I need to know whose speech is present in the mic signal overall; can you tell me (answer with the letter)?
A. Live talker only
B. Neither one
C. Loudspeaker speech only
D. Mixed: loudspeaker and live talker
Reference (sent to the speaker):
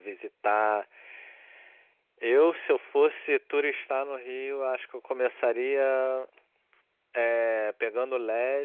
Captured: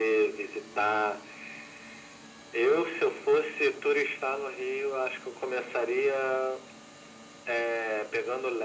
C